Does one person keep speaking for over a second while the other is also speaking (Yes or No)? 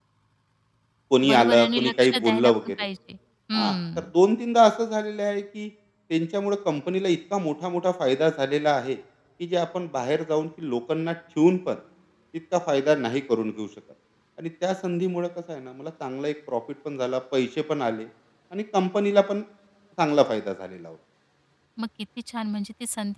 Yes